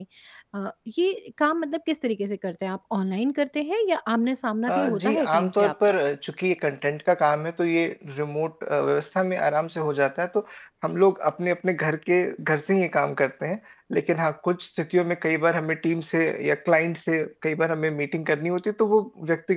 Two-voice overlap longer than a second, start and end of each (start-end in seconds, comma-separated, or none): 4.7-5.9